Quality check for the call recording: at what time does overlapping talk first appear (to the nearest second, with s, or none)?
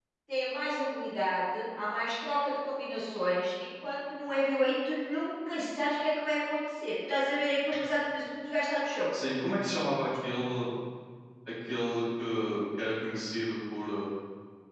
none